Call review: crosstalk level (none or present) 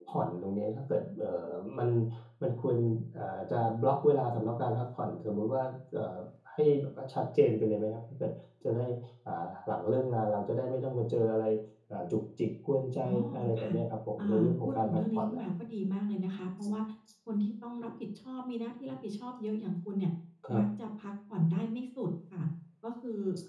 present